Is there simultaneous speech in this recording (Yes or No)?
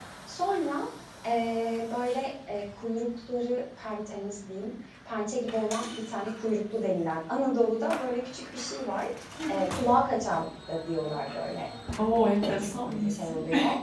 Yes